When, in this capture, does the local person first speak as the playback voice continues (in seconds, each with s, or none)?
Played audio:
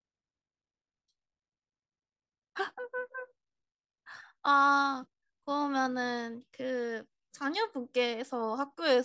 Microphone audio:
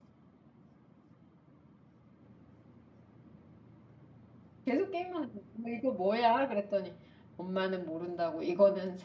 4.7 s